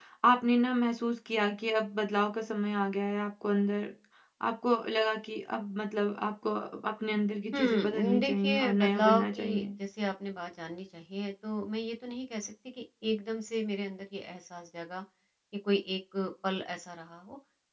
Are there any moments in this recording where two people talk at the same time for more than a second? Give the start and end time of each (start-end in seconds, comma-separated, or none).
7.5-9.7